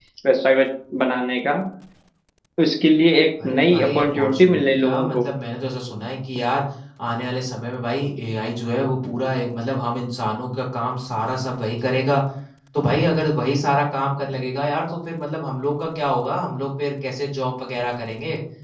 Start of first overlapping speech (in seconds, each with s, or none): 3.4 s